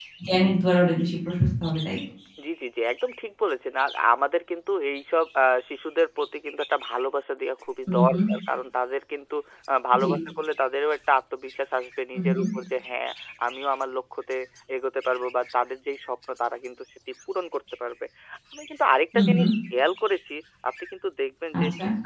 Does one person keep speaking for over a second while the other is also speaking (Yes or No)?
No